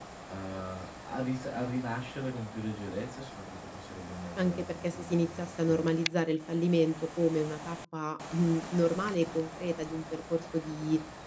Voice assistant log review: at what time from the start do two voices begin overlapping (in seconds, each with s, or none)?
4.4 s